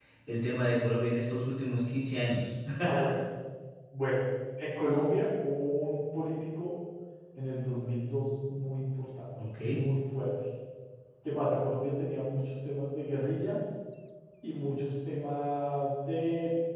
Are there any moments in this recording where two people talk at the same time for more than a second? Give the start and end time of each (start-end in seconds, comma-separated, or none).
none